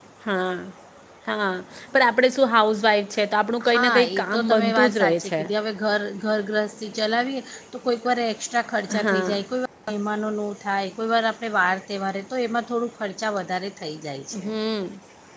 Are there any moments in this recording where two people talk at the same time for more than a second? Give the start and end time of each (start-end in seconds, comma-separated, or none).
3.7-5.3